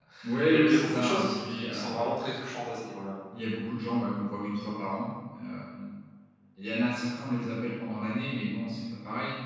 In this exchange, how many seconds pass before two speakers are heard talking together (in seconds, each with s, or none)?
0.5 s